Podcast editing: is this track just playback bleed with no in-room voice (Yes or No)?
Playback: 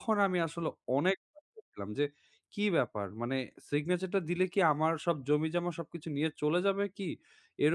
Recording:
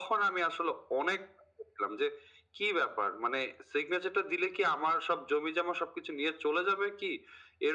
Yes